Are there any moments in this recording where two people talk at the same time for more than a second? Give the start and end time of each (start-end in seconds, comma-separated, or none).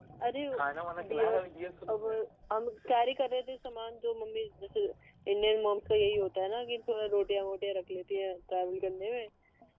none